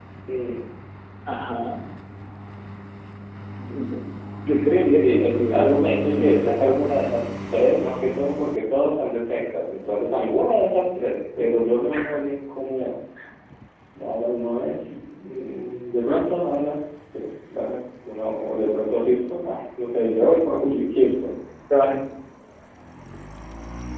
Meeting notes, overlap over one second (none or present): present